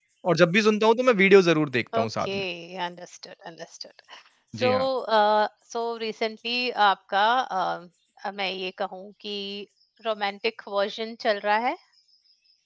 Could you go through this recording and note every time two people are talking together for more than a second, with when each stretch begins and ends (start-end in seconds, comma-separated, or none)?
none